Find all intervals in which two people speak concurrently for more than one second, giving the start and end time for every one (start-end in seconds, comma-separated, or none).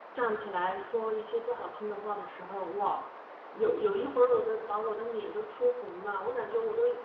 none